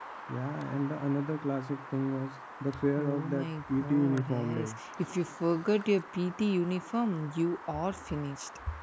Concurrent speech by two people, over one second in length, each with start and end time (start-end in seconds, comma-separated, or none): 3.0-4.7